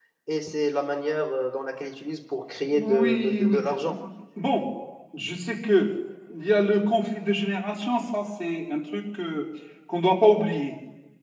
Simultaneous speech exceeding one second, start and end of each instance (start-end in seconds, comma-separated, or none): 2.7-4.0